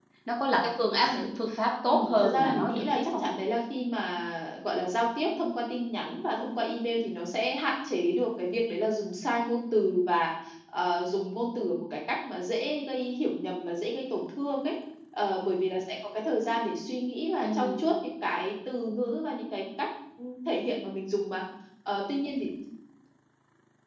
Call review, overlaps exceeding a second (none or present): present